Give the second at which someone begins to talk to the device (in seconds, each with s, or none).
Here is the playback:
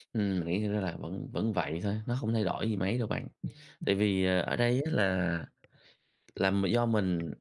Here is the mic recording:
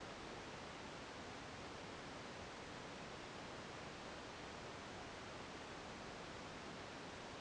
none